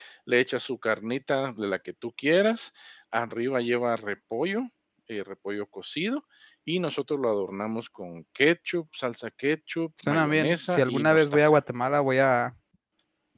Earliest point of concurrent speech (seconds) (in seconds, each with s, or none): 10.0 s